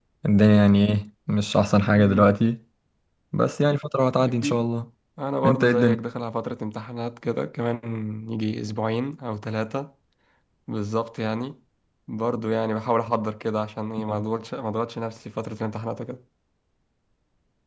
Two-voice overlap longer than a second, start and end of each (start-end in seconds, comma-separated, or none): none